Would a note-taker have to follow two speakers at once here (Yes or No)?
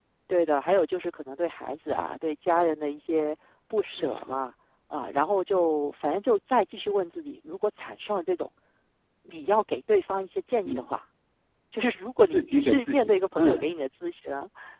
Yes